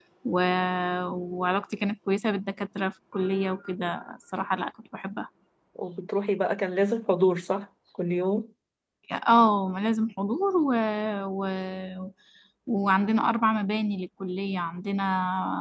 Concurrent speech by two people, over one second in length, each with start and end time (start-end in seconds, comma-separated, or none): none